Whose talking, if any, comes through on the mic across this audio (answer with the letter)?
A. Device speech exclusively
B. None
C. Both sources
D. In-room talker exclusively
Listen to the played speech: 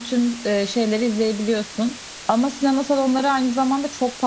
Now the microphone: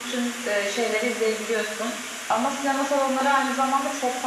A